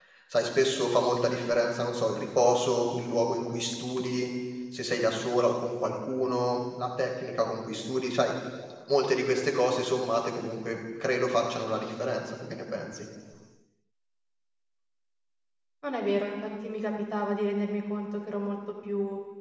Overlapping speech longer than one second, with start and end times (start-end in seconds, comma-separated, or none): none